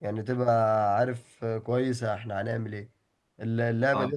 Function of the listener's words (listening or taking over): listening